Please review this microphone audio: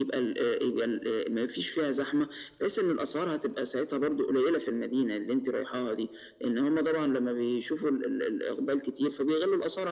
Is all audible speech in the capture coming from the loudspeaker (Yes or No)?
Yes